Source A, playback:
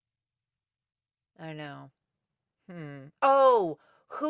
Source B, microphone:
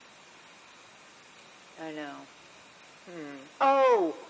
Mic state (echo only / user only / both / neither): echo only